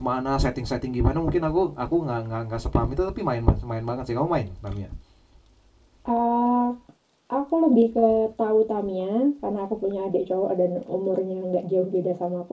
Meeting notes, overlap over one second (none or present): none